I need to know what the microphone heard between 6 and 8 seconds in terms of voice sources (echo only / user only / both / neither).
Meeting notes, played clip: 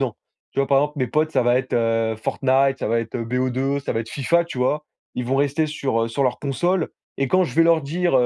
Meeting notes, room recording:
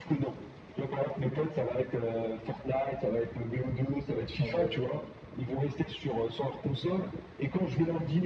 echo only